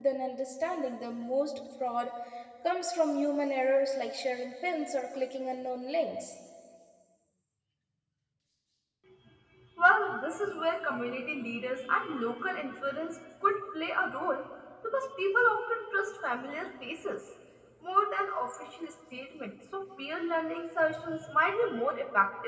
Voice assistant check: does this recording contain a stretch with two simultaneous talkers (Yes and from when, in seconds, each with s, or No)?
No